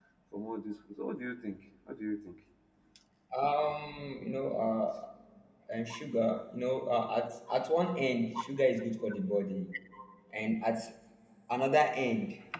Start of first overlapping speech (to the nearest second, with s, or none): none